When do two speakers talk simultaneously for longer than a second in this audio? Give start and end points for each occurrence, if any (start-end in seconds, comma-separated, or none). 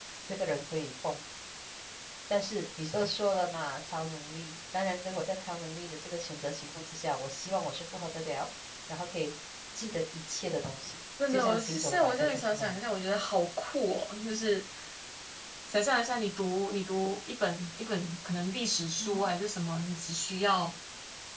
11.3-12.8